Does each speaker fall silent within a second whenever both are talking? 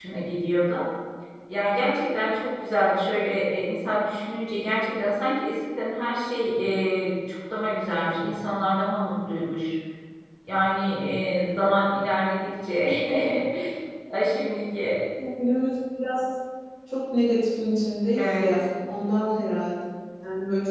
Yes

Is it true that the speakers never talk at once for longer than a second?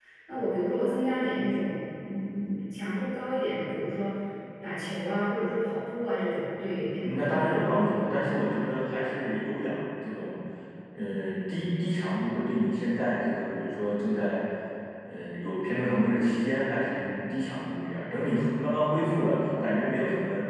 No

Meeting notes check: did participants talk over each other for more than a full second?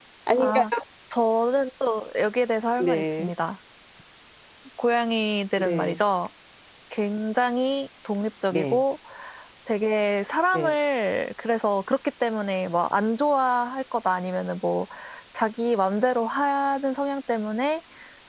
No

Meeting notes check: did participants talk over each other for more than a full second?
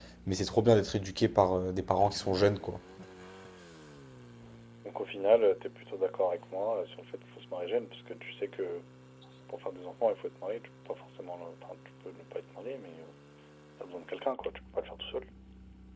No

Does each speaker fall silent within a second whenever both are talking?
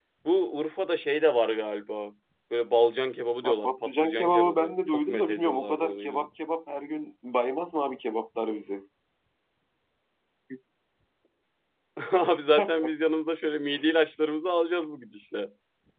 No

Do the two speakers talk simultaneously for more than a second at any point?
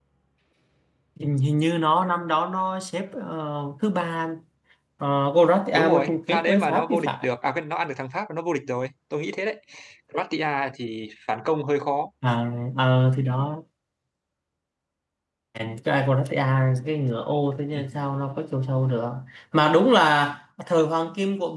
Yes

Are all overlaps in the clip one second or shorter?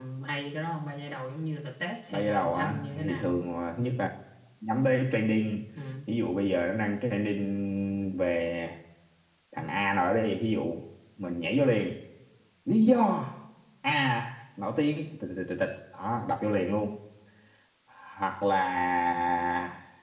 No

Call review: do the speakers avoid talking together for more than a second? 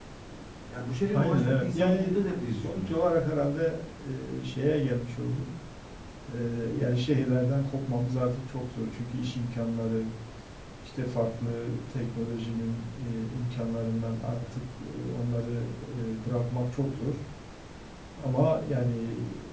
No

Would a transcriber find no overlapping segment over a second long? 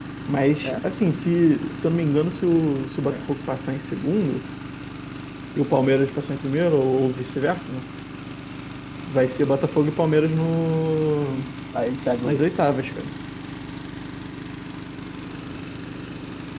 Yes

